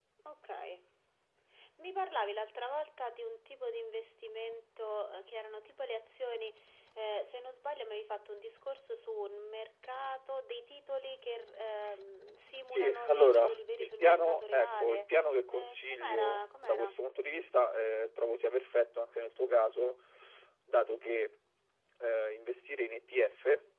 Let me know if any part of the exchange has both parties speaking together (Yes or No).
Yes